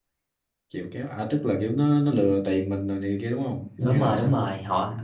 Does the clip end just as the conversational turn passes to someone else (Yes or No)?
Yes